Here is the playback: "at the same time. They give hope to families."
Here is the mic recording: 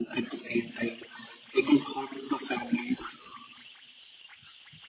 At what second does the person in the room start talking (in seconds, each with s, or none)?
none